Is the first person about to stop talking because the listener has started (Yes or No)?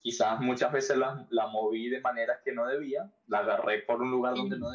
No